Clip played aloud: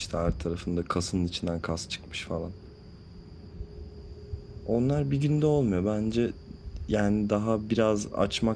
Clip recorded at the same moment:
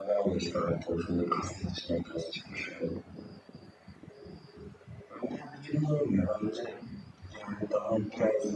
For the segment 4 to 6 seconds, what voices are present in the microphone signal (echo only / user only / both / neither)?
echo only